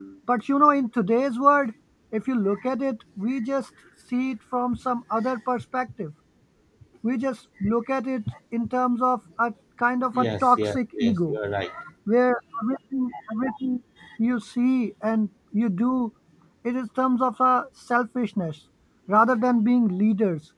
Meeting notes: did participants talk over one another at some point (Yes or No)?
Yes